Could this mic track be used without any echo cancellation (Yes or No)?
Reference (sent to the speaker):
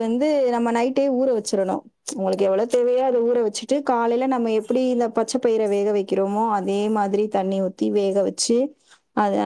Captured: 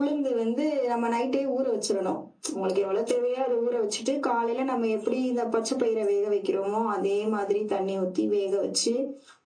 No